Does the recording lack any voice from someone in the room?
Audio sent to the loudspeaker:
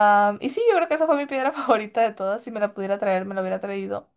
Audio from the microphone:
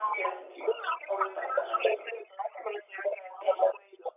No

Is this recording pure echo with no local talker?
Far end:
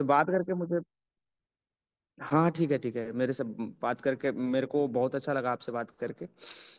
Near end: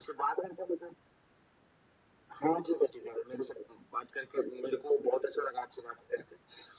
Yes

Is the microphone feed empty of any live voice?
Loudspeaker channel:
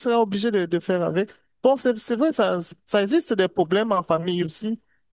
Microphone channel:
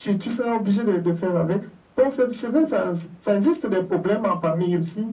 Yes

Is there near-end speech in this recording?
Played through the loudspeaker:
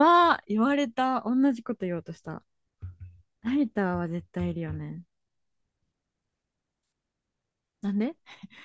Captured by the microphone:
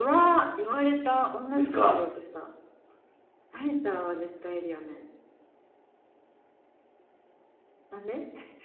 Yes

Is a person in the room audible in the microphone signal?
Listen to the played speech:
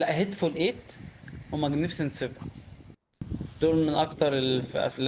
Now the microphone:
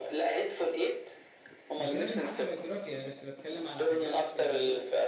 Yes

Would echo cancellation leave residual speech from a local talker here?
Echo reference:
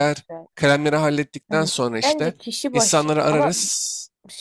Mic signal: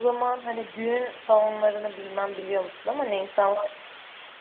Yes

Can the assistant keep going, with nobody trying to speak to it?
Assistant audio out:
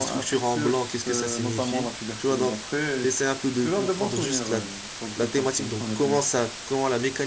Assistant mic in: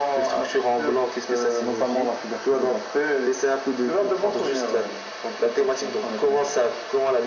Yes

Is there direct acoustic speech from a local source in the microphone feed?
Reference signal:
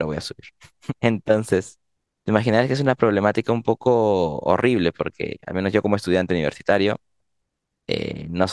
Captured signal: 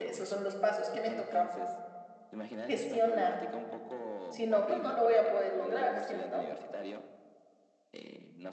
Yes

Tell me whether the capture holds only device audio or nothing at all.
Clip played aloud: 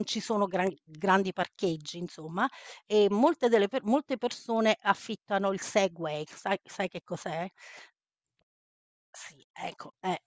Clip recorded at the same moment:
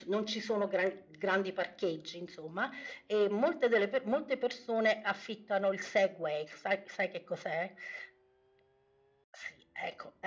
Yes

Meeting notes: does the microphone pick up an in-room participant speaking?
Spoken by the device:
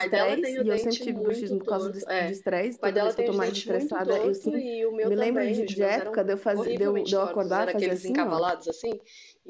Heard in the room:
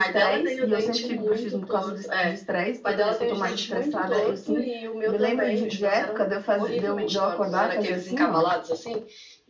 No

